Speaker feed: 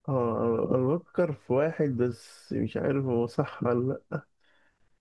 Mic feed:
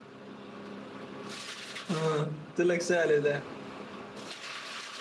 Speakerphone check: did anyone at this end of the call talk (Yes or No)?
Yes